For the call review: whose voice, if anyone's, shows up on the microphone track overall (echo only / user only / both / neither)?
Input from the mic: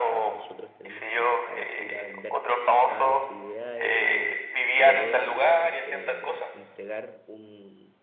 both